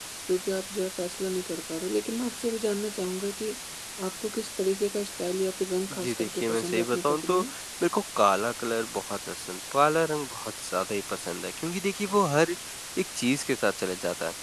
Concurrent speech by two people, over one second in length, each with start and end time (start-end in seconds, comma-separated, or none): 6.0-7.4